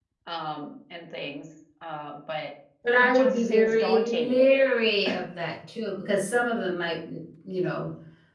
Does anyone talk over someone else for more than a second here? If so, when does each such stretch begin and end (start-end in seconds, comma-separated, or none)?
3.0-4.4